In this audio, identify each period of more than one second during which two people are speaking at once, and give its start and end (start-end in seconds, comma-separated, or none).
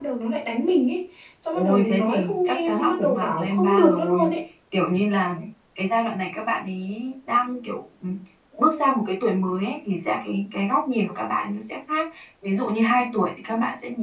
1.5-4.3